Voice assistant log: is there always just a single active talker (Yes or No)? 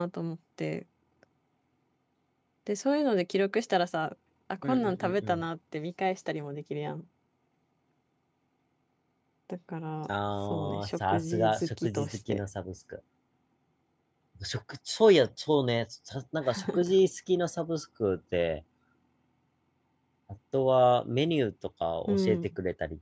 No